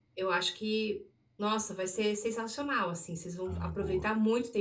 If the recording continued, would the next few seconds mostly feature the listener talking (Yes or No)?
No